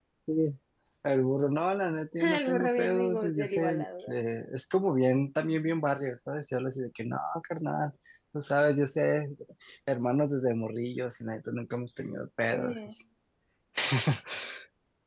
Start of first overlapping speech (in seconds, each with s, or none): 2.2 s